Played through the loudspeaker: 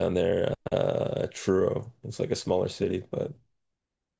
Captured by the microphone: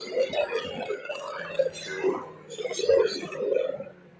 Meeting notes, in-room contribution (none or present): none